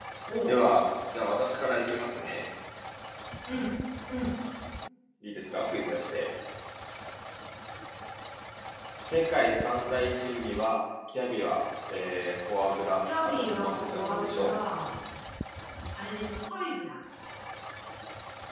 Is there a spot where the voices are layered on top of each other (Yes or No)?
Yes